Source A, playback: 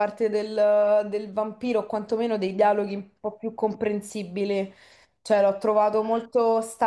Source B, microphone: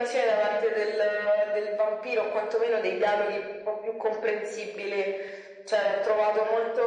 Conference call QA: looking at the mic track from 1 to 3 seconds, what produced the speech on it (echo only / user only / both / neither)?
echo only